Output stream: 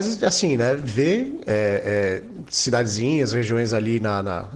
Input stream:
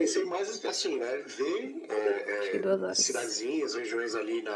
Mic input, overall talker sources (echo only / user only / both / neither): both